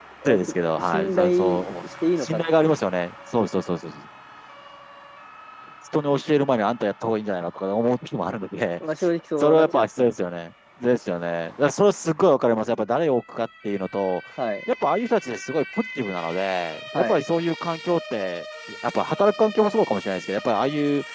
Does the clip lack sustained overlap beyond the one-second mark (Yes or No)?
No